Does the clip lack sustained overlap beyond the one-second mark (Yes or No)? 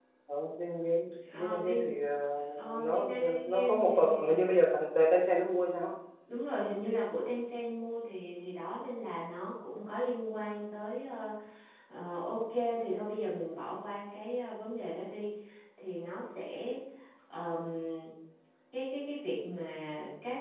No